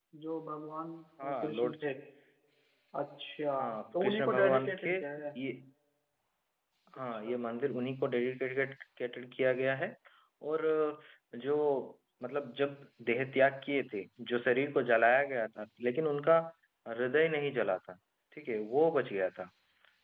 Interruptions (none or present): present